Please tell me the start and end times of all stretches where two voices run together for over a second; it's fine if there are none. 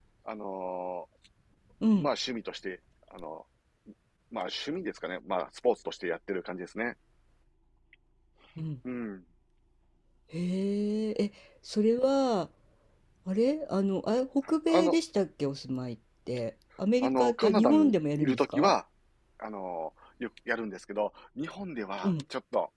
17.0-18.7

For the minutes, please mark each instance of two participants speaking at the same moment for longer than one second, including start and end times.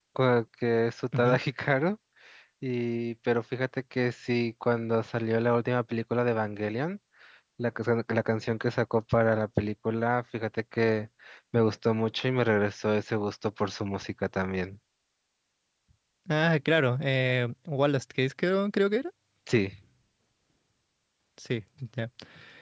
none

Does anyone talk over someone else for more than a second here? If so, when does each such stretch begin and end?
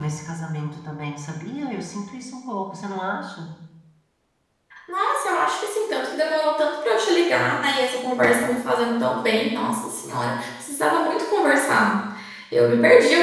none

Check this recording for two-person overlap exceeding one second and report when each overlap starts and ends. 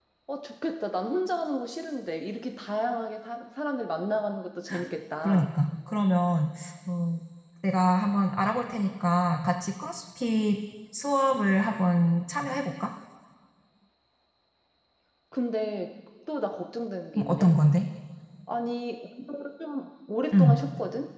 none

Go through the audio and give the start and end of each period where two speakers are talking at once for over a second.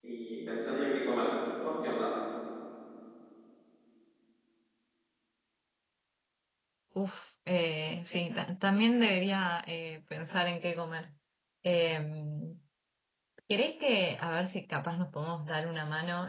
none

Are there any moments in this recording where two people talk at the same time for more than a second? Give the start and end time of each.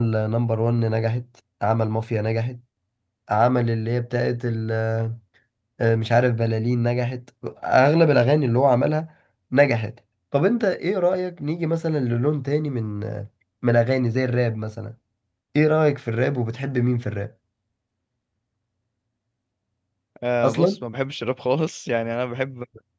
none

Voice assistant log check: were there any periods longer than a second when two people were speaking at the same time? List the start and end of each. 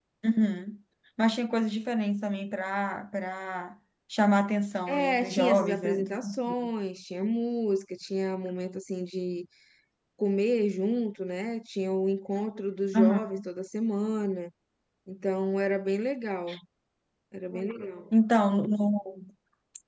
4.9-6.4

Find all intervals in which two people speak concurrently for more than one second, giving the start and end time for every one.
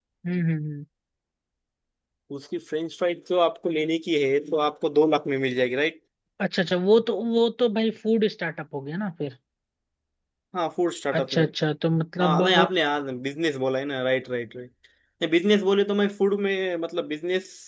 none

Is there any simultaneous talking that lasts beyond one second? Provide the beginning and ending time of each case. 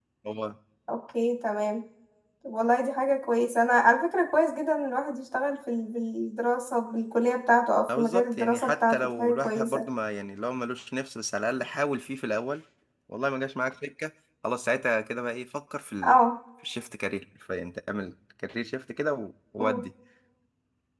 7.9-9.8

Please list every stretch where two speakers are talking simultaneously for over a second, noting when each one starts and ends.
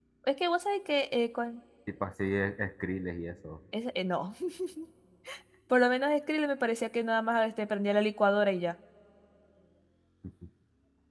none

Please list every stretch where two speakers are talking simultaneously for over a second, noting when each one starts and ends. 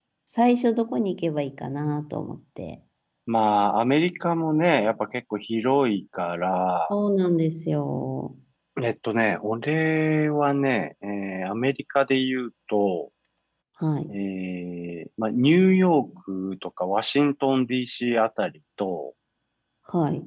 none

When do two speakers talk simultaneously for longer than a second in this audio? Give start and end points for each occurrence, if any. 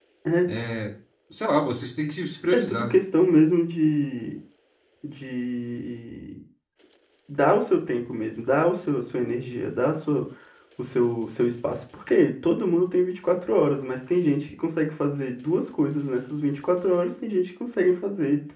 none

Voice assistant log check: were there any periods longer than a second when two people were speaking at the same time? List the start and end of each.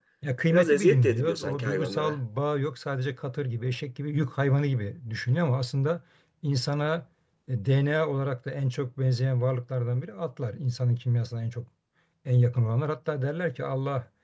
0.5-2.2

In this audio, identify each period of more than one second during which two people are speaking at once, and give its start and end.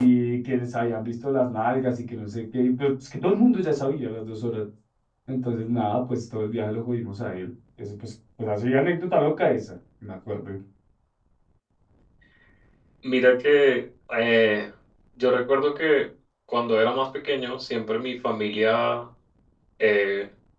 none

